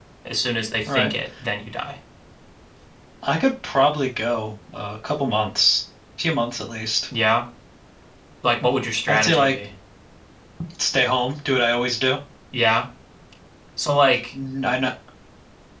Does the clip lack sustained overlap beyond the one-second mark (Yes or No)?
Yes